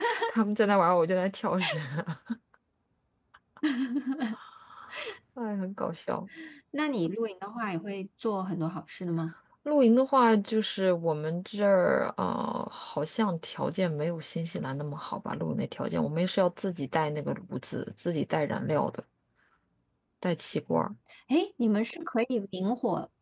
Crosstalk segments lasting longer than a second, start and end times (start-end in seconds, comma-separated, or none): none